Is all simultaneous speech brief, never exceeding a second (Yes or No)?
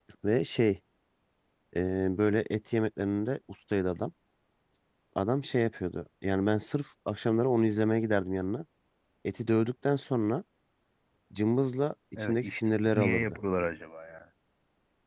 No